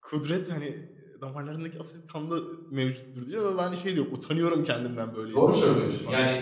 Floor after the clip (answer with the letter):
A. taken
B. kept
A